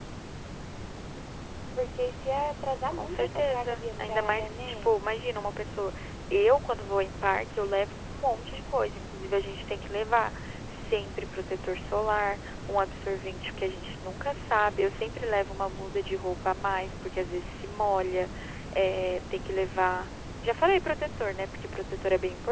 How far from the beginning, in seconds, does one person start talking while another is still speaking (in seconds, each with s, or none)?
2.9 s